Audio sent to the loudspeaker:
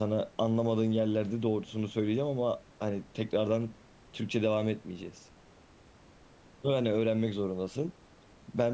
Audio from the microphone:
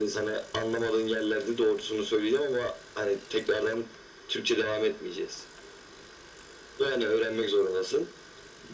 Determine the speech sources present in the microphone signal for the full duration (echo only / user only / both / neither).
echo only